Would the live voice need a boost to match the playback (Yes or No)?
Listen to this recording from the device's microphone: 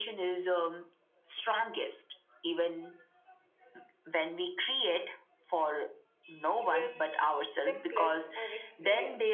Yes